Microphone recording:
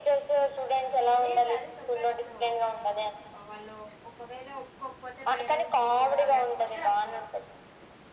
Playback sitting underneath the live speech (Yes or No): No